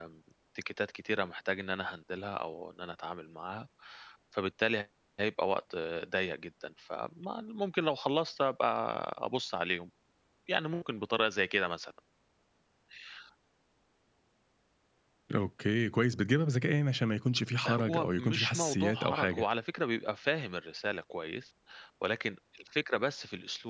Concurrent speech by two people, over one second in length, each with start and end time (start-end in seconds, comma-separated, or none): 17.8-19.4